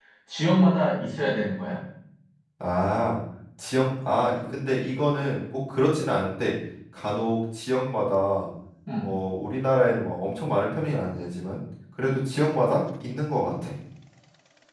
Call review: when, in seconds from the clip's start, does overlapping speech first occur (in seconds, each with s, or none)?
none